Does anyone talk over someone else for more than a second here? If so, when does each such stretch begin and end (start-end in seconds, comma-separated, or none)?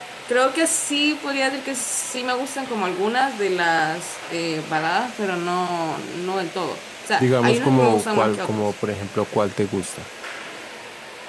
7.2-8.7